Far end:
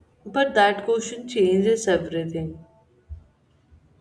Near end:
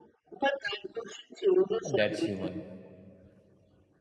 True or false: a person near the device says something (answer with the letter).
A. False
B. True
B